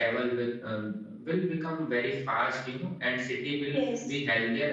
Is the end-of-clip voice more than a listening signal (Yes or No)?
No